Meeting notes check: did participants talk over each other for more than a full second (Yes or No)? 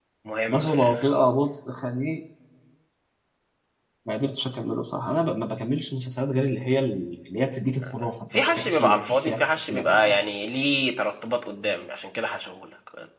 Yes